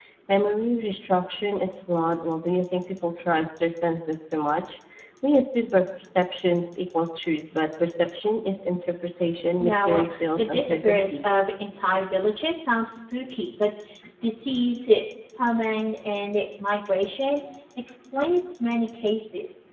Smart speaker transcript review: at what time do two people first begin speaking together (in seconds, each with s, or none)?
9.6 s